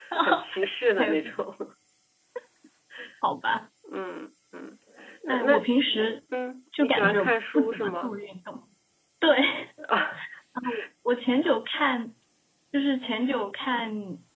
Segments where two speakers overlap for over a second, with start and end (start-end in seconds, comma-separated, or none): 6.8-8.1